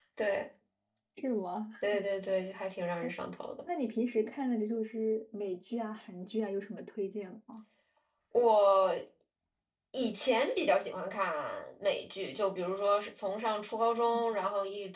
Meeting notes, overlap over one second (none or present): none